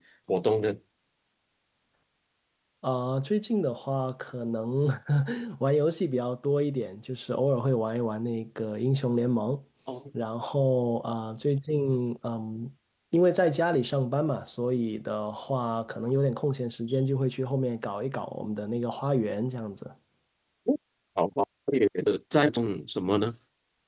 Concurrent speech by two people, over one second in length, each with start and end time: none

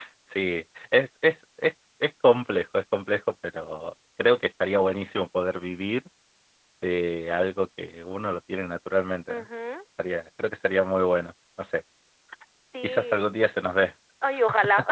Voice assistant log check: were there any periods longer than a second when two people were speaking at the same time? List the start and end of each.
none

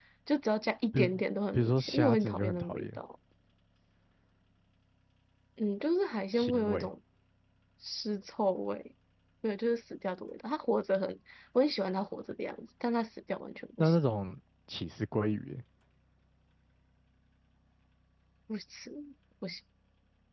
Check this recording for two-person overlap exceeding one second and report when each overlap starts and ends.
1.5-3.0

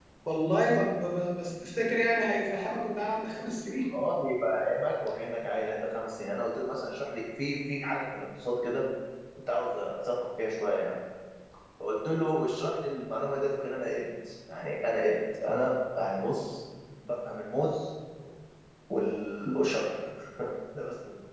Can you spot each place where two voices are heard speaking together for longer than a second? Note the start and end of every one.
none

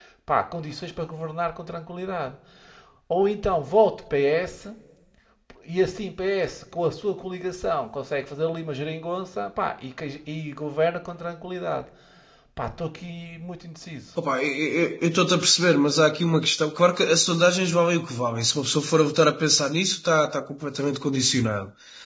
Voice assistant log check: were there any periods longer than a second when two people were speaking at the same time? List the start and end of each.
none

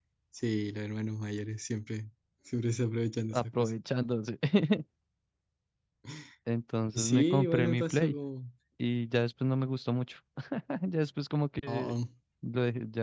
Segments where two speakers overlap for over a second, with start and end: 6.9-8.2

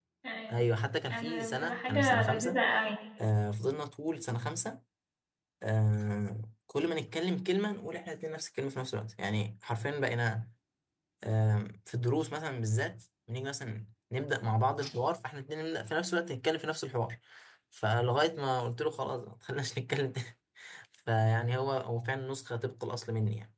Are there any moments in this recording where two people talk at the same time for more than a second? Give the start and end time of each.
1.1-2.6

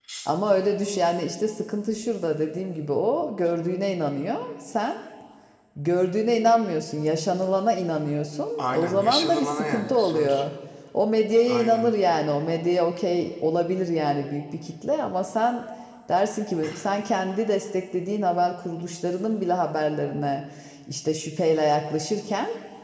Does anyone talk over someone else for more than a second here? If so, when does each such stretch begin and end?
8.6-10.4

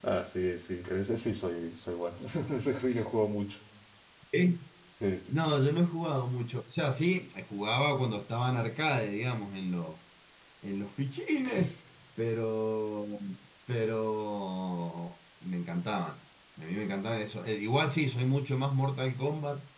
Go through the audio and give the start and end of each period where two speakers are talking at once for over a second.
none

